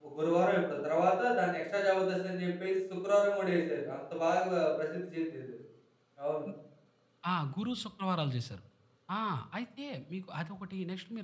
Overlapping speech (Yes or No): No